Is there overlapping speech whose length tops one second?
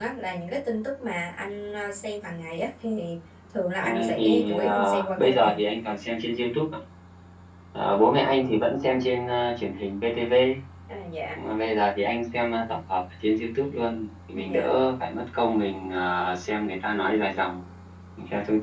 Yes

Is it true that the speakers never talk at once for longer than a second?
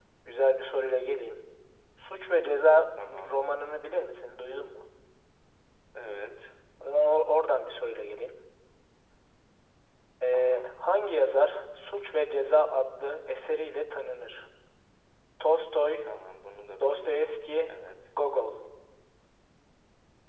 Yes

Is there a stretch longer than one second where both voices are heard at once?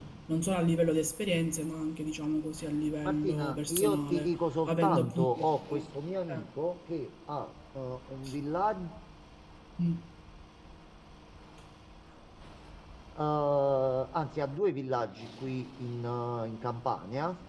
Yes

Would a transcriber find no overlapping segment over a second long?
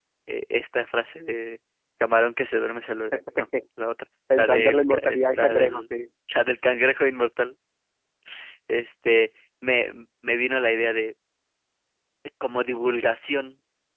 No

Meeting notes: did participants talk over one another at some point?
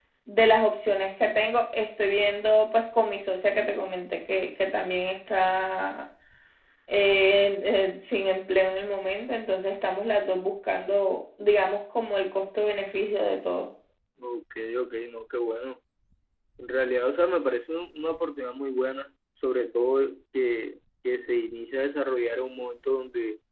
No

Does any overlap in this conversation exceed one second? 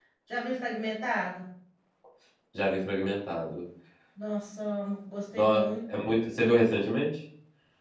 No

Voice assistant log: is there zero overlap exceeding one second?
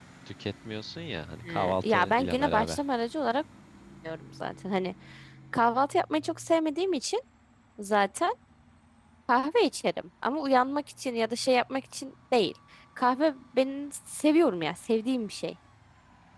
No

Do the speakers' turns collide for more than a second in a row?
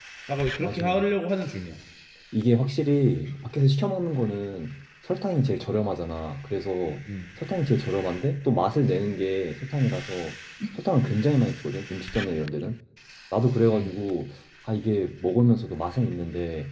No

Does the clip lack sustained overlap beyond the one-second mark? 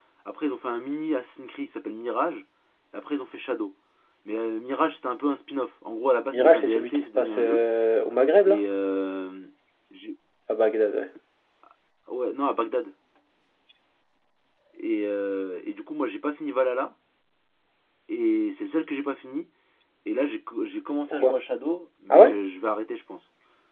No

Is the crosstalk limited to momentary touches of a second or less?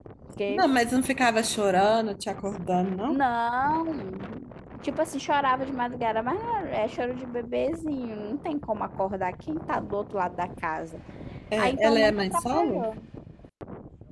No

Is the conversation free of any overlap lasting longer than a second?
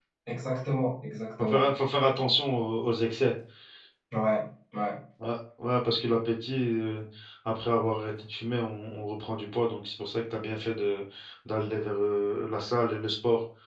Yes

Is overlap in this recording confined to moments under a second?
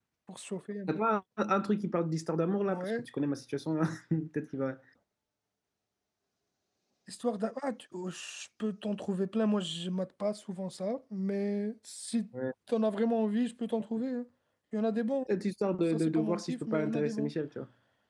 No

